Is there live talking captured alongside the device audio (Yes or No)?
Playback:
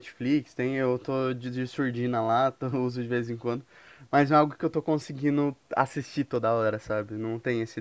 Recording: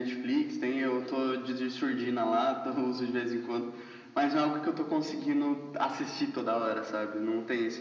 No